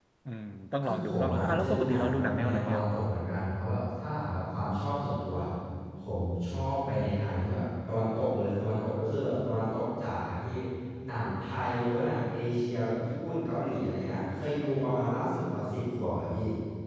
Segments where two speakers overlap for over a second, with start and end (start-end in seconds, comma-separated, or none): 0.8-2.8